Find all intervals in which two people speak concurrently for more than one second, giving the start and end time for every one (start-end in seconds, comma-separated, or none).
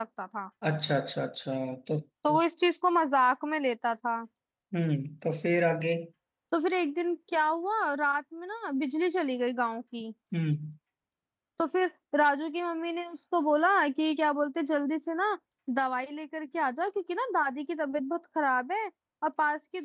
none